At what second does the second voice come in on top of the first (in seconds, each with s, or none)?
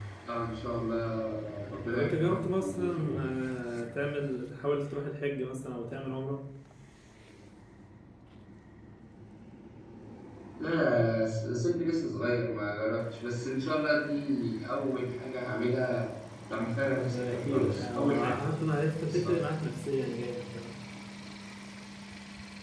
1.8 s